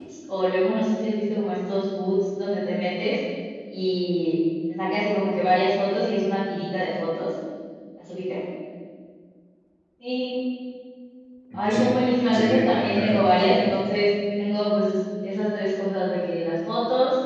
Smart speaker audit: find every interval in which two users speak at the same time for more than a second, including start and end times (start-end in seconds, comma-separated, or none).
12.3-13.7